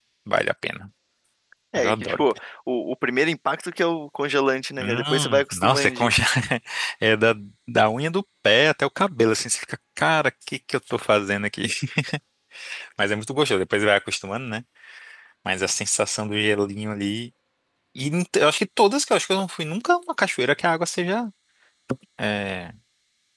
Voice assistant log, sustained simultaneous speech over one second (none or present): present